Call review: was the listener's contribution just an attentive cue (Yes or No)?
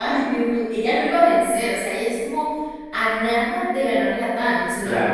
No